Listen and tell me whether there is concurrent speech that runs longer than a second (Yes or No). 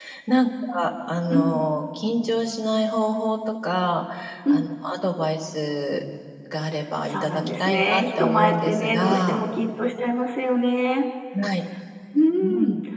Yes